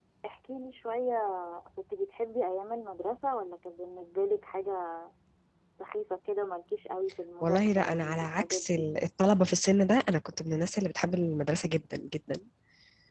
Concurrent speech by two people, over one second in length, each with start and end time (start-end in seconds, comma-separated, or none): 7.4-8.9